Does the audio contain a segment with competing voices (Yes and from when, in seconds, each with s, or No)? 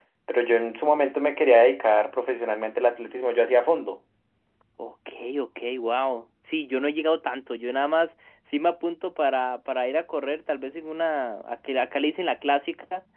No